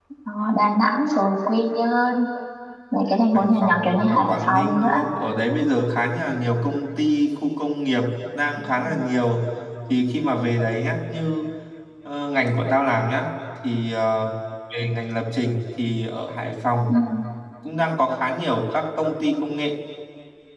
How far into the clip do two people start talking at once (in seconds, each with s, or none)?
3.3 s